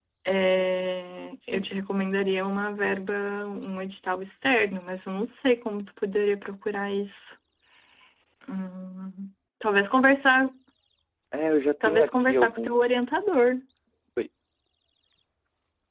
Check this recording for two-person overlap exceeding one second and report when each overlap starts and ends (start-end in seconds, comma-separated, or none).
11.8-13.0